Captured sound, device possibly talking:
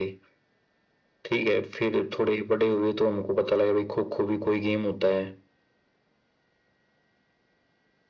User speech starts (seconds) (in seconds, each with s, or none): none